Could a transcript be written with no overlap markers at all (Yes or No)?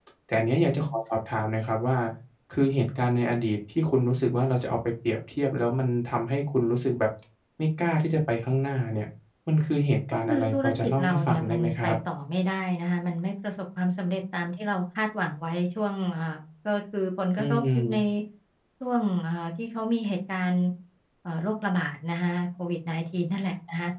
No